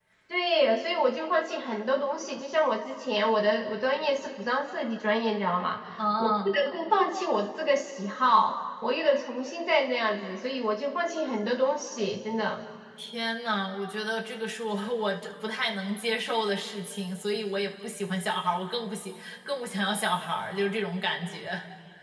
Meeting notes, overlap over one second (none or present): none